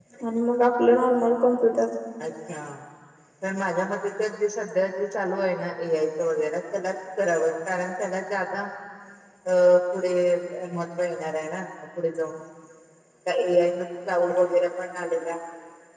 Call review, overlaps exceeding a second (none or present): none